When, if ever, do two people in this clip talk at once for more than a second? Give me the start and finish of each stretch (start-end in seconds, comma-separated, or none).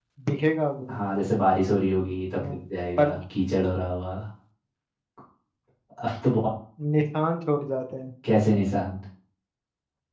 none